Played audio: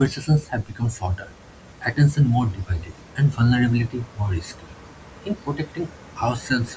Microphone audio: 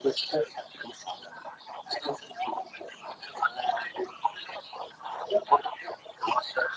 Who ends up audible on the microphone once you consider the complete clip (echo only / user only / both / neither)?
echo only